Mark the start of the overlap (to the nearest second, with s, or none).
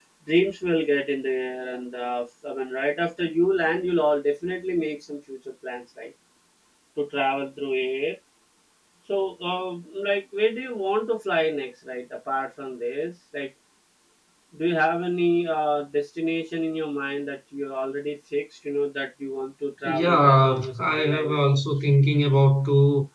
20 s